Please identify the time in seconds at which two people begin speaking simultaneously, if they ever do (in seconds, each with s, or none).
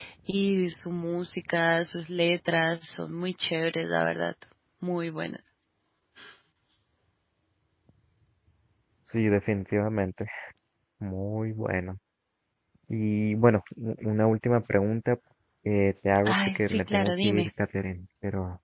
16.3 s